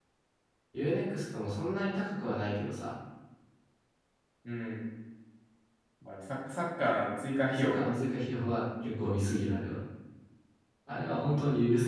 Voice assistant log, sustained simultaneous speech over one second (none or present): none